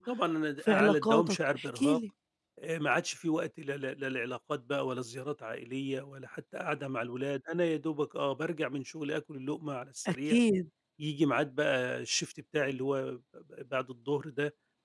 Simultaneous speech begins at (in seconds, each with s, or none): 0.7 s